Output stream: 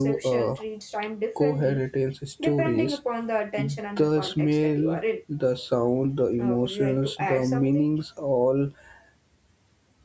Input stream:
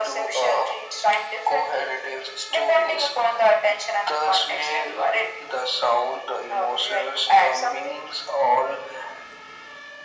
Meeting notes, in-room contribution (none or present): none